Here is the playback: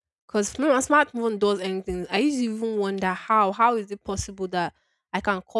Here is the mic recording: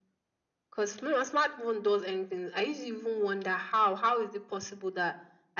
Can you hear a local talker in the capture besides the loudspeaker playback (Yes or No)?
No